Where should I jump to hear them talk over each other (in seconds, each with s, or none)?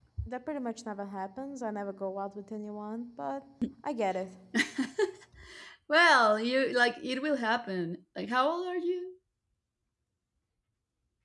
none